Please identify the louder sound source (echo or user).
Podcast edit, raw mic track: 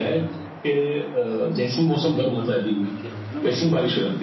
echo